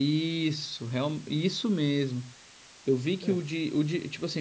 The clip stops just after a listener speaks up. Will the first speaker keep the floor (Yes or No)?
Yes